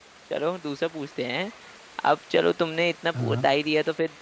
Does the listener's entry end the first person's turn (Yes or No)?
No